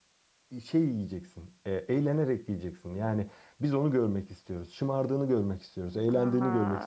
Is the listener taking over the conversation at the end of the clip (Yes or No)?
Yes